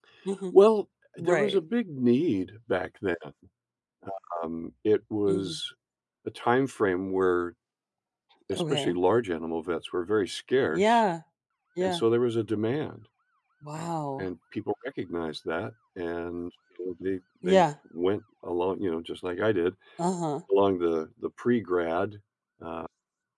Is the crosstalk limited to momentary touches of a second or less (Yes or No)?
Yes